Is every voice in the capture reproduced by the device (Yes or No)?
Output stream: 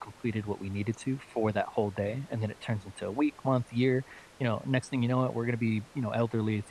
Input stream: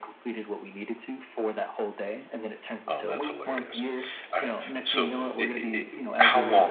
No